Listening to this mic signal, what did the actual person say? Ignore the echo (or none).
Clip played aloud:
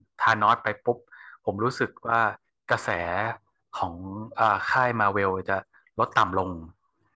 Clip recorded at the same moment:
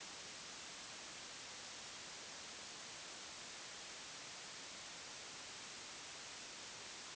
none